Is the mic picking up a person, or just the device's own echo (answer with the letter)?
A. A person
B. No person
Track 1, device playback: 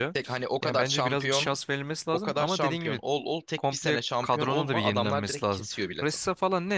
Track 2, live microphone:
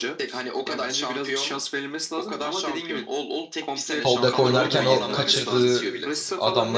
A